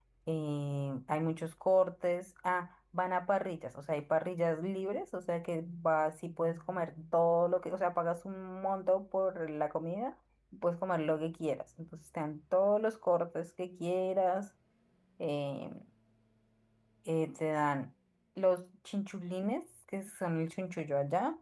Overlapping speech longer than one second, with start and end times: none

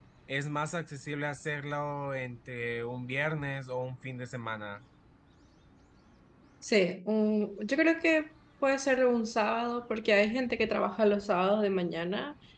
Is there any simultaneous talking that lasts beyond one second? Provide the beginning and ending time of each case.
none

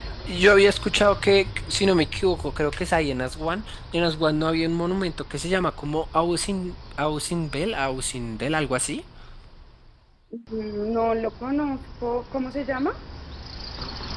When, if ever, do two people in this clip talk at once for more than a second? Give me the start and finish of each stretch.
none

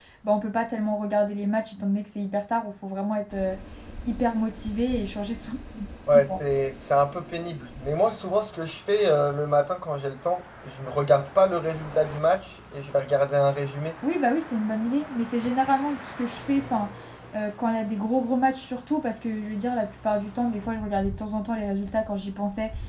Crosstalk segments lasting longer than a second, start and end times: none

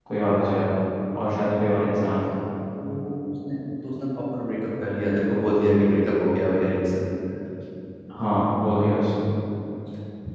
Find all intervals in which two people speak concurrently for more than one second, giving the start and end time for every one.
none

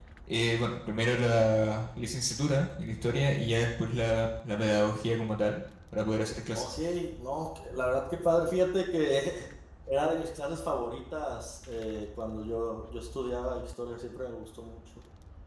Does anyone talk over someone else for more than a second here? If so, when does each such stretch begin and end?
none

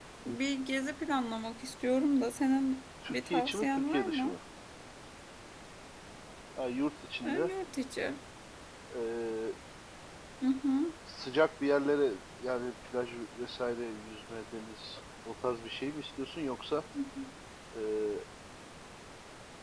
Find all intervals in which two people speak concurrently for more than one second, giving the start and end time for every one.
3.1-4.3

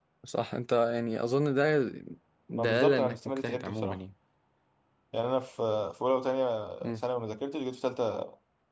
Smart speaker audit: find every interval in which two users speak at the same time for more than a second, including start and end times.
2.6-4.0

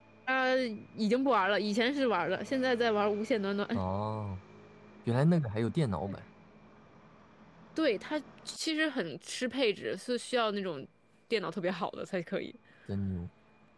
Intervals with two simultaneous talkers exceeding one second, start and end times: none

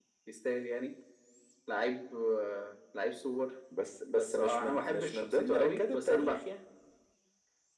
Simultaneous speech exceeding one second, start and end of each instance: 4.0-6.4

